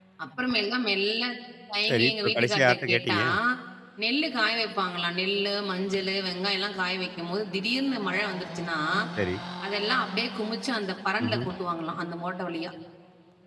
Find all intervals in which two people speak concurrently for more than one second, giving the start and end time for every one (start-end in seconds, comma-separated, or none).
1.9-3.2